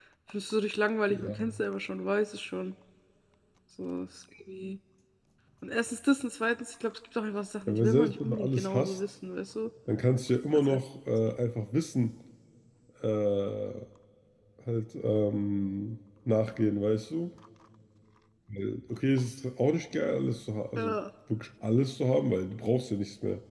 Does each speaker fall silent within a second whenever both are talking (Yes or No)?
No